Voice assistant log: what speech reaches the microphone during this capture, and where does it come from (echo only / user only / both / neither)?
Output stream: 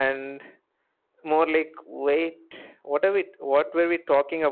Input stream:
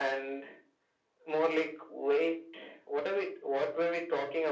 echo only